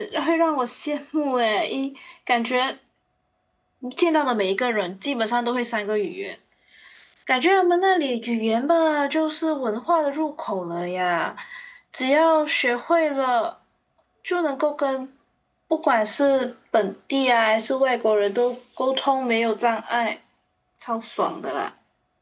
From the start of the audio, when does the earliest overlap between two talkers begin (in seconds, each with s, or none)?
none